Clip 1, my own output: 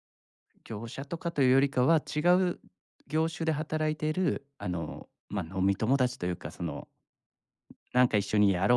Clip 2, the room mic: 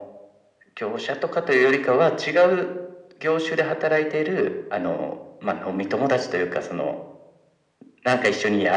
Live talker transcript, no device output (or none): none